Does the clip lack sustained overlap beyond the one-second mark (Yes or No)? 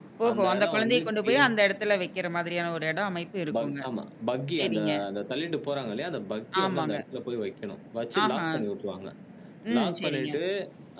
No